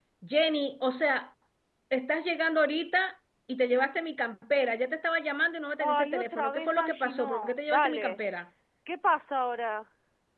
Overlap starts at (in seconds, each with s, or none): 5.8 s